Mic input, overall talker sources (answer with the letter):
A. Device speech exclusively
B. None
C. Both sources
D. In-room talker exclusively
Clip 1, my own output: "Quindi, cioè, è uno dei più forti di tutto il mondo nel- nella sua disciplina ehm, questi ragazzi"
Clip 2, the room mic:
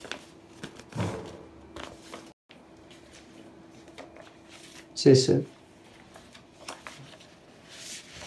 D